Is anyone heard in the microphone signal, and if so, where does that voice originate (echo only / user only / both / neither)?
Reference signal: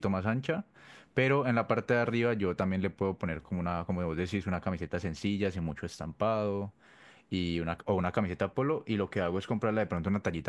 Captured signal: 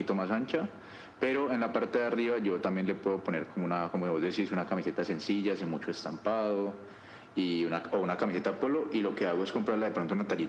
echo only